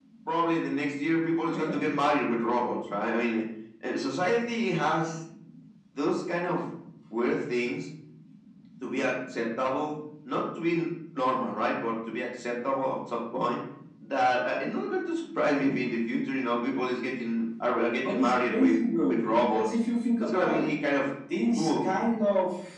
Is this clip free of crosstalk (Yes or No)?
No